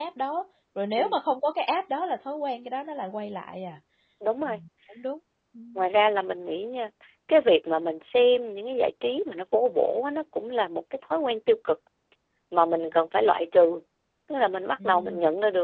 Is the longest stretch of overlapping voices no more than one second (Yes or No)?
Yes